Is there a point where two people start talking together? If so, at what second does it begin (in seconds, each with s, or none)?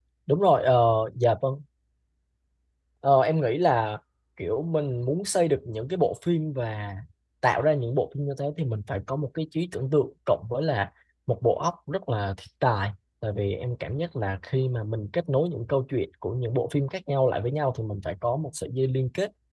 none